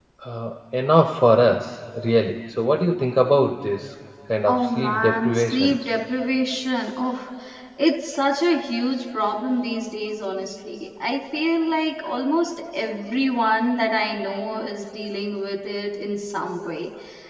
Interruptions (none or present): present